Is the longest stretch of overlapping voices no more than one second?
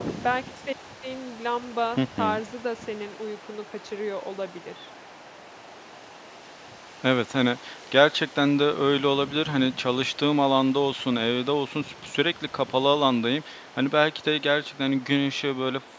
Yes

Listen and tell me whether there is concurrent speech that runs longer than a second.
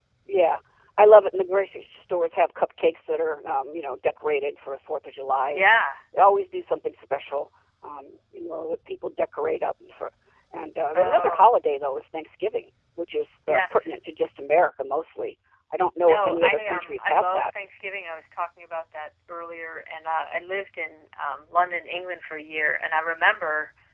Yes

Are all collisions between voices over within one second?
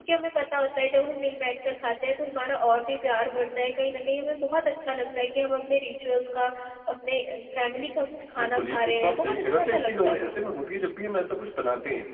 No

